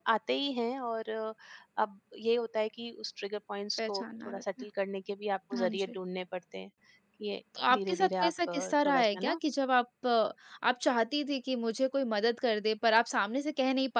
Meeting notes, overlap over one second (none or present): present